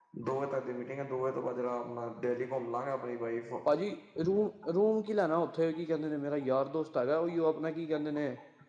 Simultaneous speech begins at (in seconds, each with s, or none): none